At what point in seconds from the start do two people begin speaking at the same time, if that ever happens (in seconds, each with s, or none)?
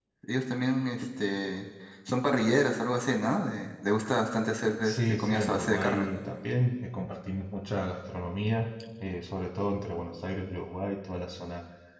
4.8 s